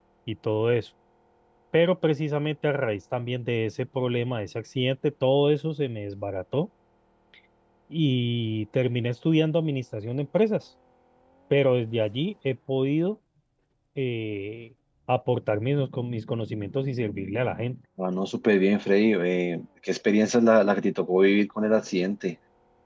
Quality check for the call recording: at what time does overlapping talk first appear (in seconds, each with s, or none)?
none